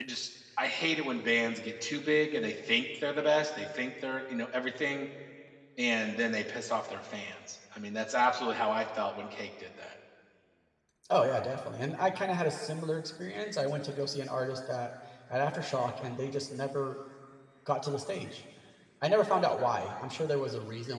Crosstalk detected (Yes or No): No